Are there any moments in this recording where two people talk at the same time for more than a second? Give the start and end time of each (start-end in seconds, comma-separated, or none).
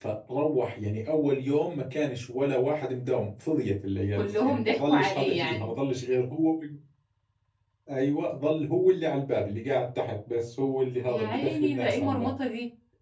4.2-5.7, 11.1-12.3